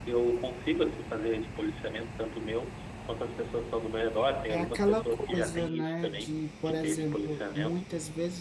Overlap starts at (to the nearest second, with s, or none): 4 s